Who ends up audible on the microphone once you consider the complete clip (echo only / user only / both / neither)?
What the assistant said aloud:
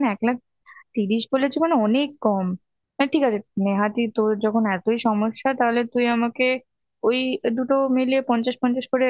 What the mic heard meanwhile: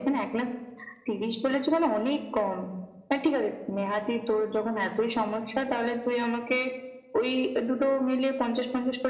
echo only